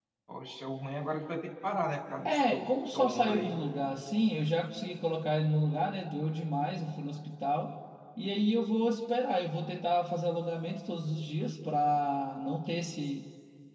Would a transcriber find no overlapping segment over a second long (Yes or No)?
No